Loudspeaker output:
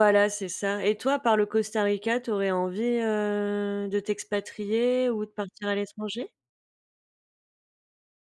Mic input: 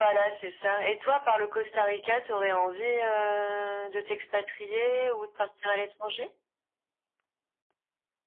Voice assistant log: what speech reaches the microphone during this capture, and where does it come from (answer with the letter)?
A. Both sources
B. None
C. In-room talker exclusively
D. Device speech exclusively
D